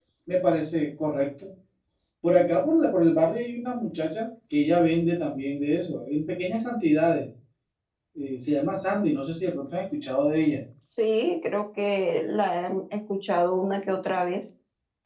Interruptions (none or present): none